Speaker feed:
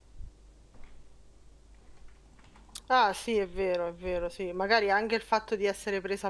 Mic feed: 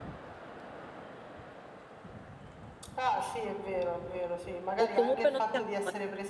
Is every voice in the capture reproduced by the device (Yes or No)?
No